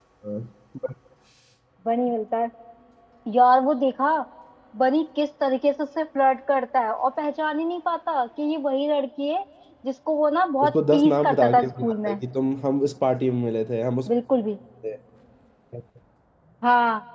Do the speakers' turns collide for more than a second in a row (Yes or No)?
Yes